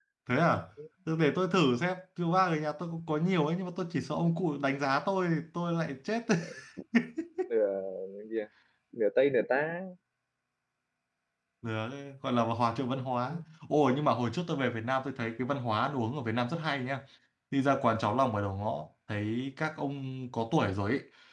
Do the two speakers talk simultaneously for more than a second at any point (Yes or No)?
No